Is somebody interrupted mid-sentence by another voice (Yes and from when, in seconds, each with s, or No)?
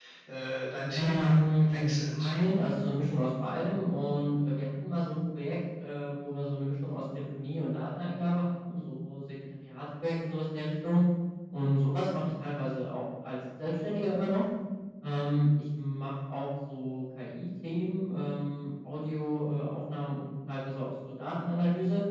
Yes, from 0.9 s